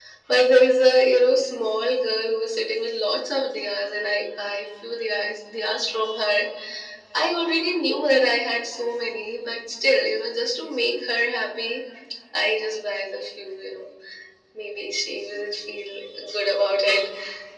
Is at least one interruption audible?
No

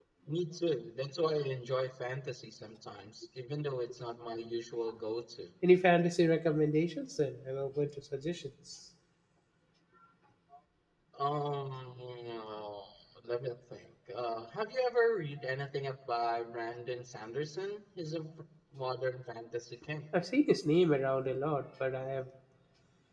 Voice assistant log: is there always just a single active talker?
Yes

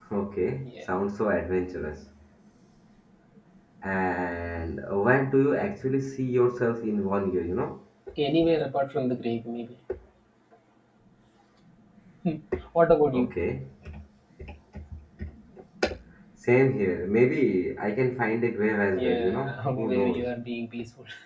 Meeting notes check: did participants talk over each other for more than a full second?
Yes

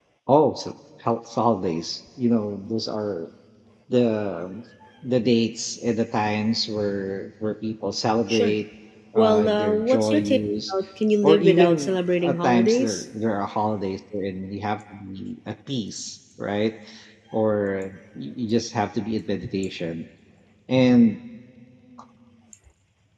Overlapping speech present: Yes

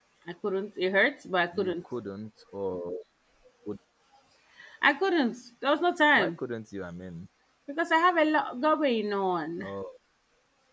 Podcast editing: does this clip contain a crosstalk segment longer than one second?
No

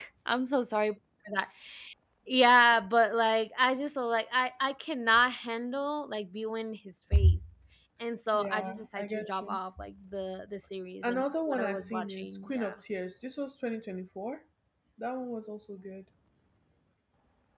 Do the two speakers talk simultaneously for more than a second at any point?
Yes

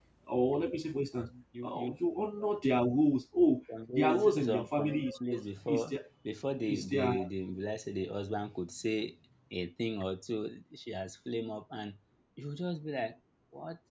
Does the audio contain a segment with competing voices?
Yes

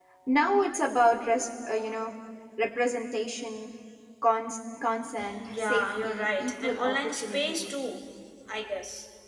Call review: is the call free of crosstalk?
No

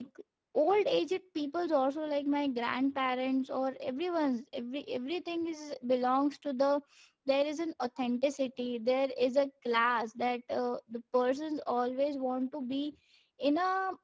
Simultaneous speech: No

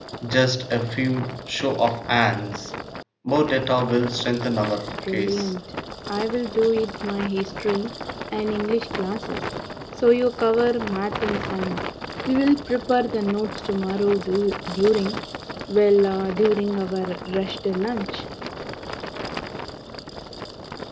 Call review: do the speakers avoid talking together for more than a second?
Yes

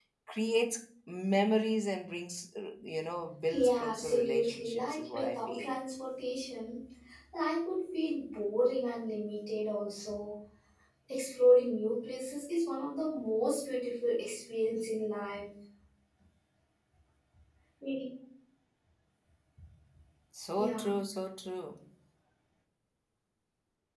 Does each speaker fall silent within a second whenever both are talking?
No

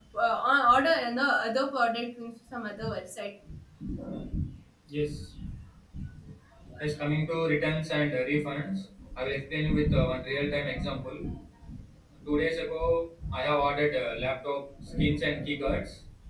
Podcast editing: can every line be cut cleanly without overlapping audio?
Yes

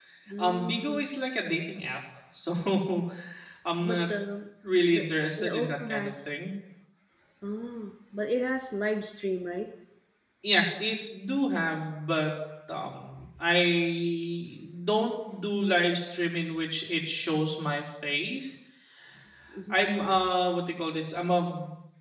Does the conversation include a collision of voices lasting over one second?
Yes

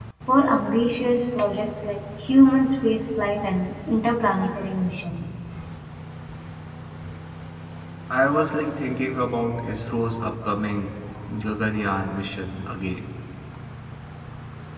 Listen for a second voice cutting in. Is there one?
No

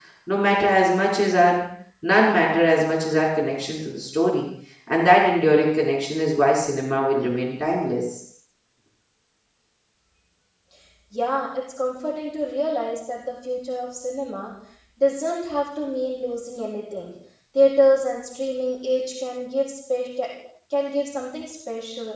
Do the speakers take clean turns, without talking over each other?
Yes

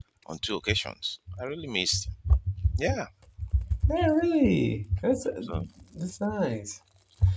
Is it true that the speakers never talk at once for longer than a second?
Yes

